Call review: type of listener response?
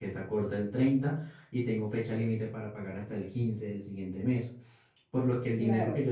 listening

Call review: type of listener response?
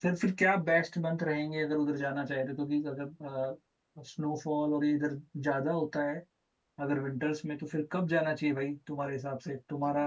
taking over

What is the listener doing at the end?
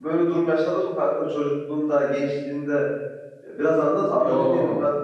taking over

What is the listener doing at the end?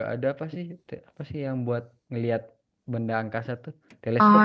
taking over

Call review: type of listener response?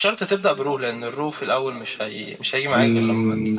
taking over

